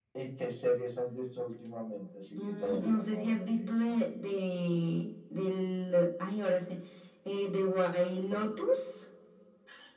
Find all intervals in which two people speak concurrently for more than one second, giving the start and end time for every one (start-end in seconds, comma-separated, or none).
2.4-4.0